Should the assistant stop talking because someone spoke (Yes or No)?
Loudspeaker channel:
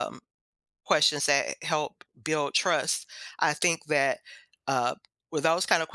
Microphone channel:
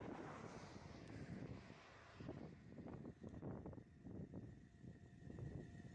No